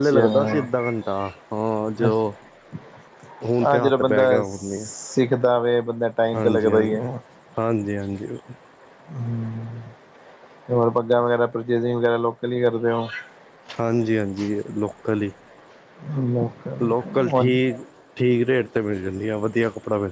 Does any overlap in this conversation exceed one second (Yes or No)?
Yes